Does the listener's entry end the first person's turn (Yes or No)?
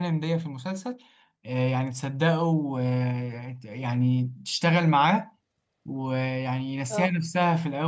No